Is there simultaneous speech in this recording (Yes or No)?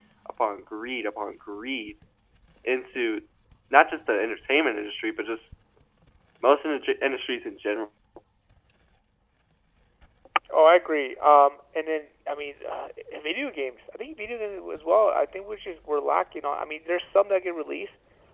No